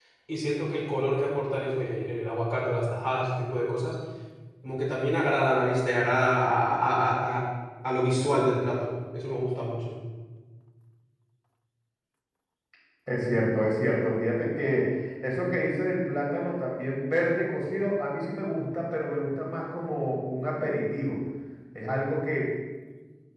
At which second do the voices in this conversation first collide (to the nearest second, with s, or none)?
none